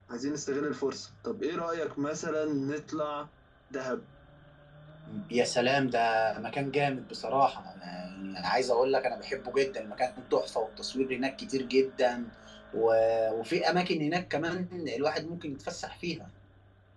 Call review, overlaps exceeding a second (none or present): none